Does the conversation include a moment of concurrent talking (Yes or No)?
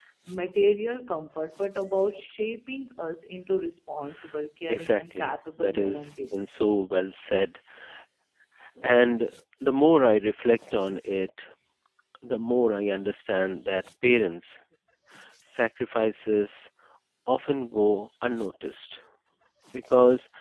Yes